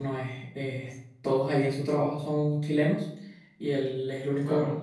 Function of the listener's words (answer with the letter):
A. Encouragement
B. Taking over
A